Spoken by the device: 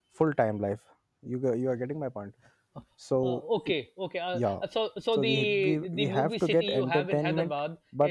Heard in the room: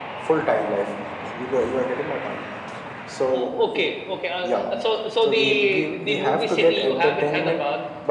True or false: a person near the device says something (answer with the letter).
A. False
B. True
A